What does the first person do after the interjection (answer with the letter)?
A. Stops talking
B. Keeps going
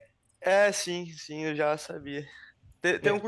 B